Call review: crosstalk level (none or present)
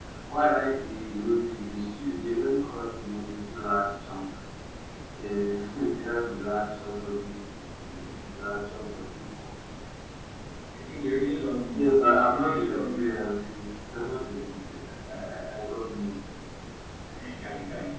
present